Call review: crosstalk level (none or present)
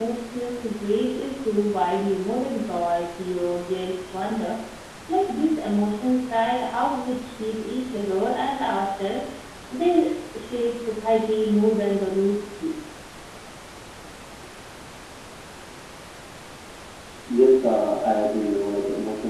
none